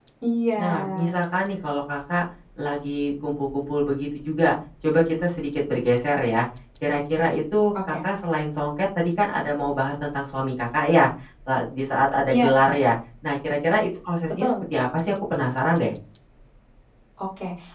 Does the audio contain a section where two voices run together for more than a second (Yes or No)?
No